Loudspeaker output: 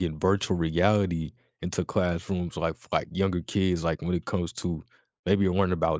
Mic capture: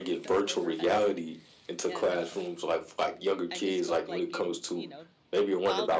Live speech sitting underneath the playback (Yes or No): Yes